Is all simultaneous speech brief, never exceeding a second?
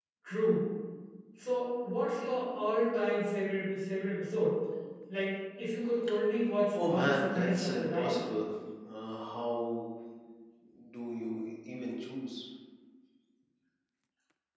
No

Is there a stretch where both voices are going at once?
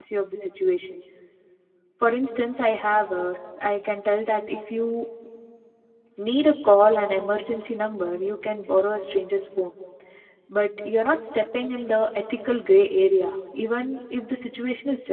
No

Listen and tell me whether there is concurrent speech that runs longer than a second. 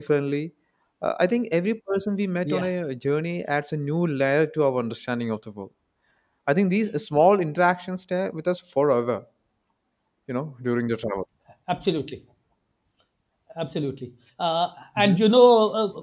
No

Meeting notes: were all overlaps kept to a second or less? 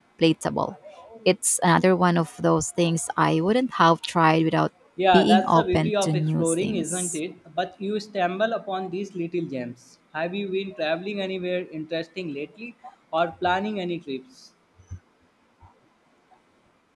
No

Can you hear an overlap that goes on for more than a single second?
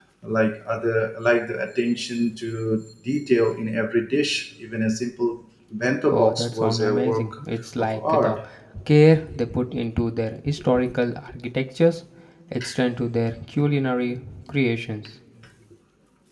Yes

